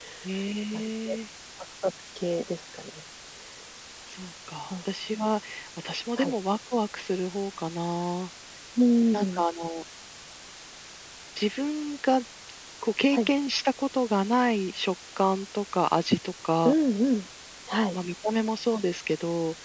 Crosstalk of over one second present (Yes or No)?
No